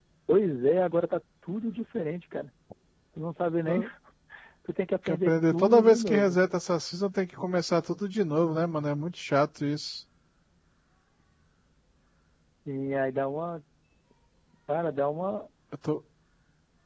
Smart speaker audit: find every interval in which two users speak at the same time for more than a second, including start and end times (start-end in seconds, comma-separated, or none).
5.1-6.4